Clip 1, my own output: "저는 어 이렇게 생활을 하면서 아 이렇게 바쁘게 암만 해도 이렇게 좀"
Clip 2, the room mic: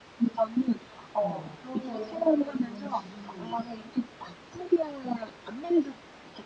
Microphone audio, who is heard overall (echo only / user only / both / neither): both